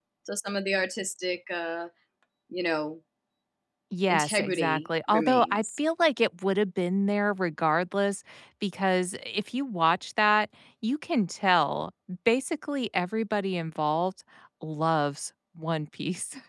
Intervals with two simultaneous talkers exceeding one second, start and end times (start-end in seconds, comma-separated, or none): 4.1-5.6